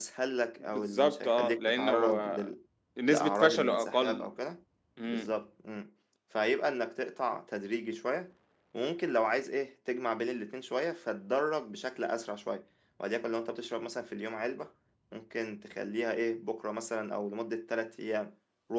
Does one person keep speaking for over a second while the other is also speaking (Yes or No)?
Yes